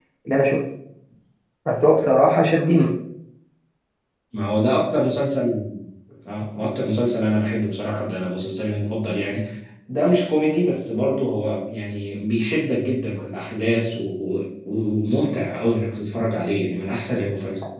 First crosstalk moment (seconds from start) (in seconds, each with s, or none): none